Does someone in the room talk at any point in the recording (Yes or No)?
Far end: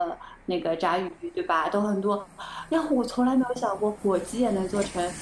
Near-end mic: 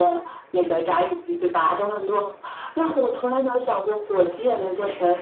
No